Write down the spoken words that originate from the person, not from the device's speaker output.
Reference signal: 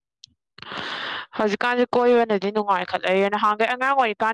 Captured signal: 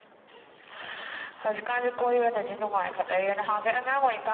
none

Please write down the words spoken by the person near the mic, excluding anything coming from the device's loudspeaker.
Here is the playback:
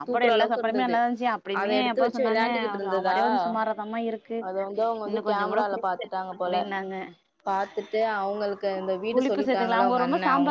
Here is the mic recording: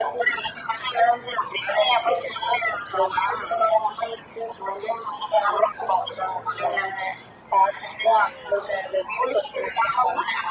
none

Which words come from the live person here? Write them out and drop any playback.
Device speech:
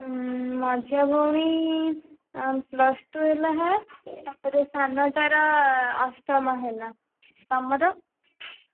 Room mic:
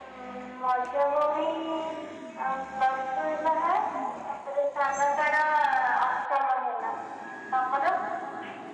none

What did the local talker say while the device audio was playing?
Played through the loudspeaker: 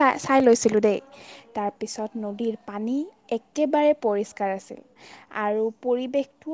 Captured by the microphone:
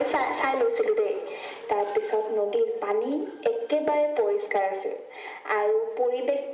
none

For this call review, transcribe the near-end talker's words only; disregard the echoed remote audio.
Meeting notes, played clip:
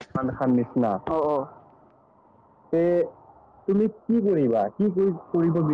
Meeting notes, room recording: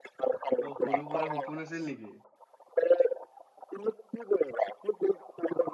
অ সৰু পৰা সপোন আছিল নেকি

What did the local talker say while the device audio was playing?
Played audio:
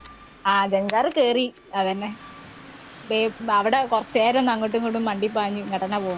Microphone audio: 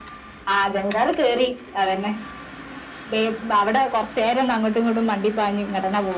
none

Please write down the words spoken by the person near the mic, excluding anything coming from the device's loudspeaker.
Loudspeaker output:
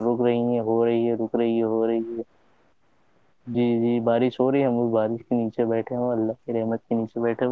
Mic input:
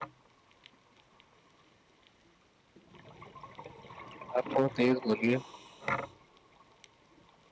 آپ تھوڑا تیز بولیے

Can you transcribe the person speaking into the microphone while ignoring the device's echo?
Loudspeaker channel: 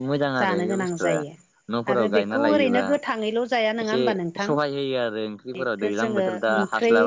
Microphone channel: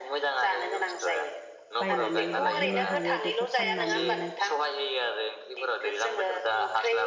बायनानै लाहैनो हायो बेखौ फाननानैनो

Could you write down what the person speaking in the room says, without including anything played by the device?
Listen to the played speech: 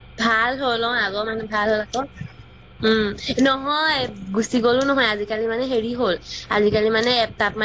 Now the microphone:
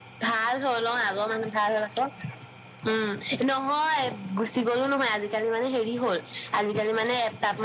none

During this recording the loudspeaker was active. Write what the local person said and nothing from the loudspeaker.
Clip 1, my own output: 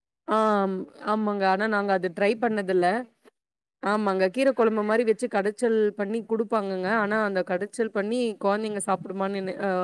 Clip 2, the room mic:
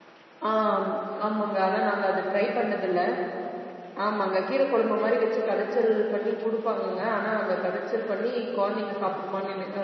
none

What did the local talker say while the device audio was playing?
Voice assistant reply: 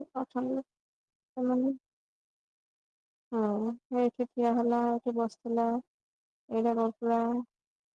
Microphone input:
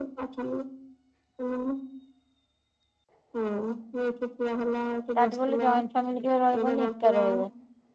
ତାଠୁ ଗଲେ ଜଏଣ୍ଟ ଫାମିଲି ଟେ ରହିବନି ଏକା ରହିବ।

